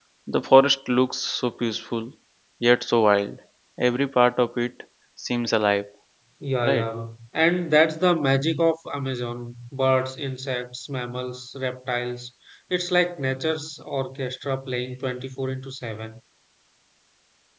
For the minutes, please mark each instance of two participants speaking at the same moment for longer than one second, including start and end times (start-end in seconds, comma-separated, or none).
none